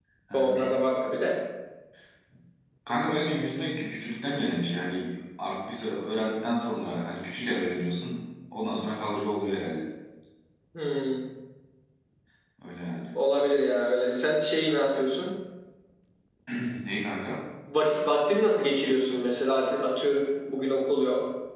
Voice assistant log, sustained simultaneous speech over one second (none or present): none